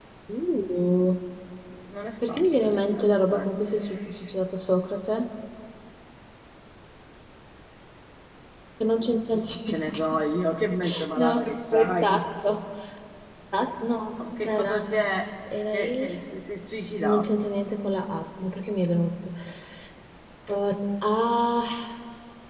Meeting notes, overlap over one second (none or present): present